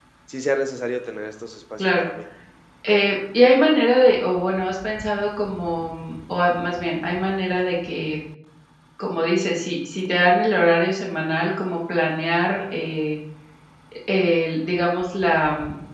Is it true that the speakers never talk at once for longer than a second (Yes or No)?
Yes